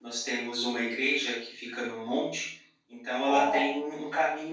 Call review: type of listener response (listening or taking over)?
listening